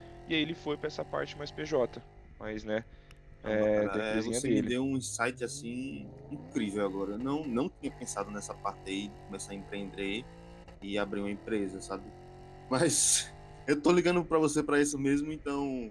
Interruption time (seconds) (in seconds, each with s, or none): 3.5 s